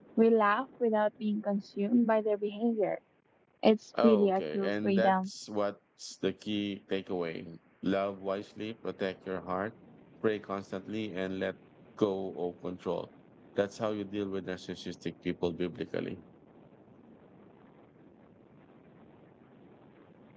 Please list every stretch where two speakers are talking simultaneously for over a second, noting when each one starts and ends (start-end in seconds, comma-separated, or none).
4.0-5.3